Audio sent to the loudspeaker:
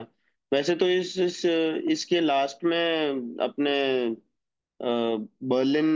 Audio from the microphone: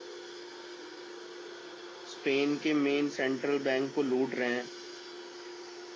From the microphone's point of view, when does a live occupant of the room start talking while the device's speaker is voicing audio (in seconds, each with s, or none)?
2.1 s